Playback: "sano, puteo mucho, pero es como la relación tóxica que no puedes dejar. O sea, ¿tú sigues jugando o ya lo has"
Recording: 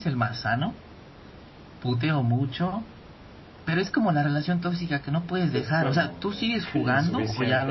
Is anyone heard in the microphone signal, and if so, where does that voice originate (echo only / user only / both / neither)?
both